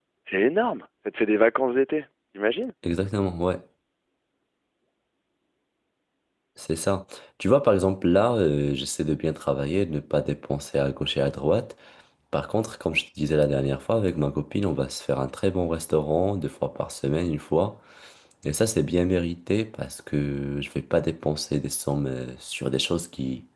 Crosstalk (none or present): none